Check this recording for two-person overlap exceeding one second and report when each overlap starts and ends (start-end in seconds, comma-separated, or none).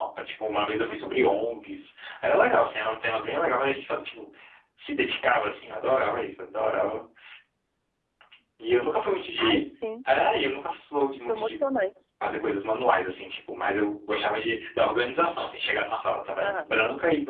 none